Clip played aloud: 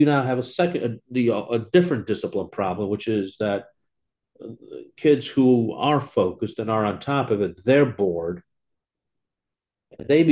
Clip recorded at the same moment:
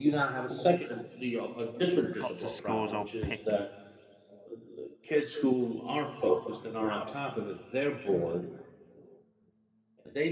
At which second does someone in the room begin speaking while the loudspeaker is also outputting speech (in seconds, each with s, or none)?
2.2 s